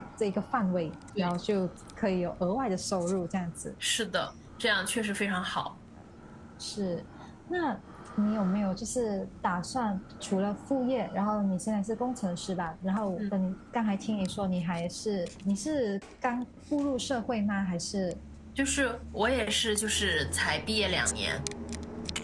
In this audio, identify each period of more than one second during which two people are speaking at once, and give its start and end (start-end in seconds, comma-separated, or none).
none